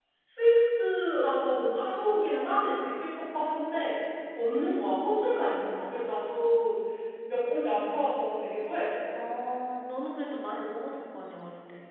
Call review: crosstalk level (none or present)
none